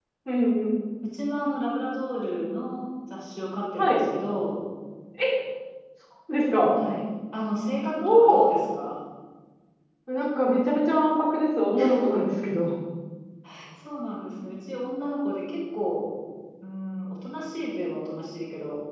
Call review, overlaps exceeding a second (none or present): none